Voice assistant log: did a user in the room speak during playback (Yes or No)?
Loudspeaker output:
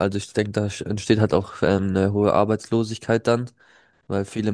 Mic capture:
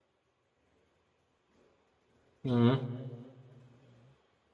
Yes